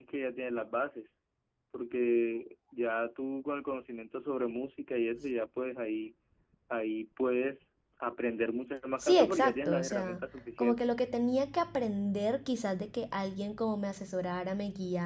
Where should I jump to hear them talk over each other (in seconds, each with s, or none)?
9.0 s